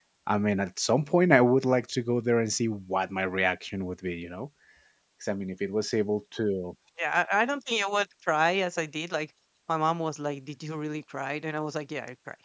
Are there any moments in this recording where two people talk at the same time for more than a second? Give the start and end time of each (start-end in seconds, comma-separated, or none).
none